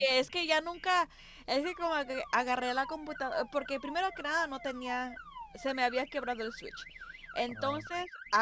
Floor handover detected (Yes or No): No